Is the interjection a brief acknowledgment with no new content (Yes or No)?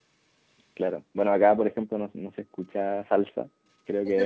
No